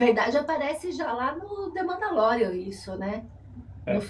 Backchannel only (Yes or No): Yes